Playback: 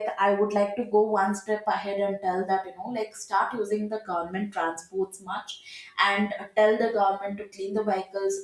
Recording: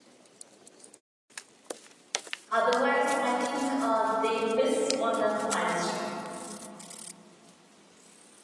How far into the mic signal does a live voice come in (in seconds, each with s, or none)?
2.5 s